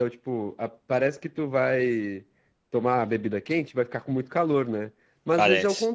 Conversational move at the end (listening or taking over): listening